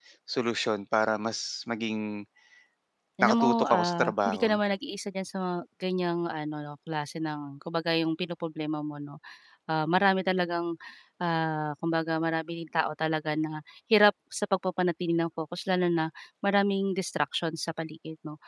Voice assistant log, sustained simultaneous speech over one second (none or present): present